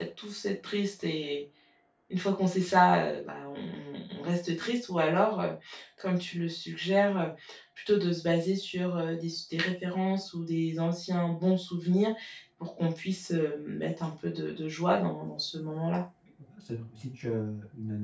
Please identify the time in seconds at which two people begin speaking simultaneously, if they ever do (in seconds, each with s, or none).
none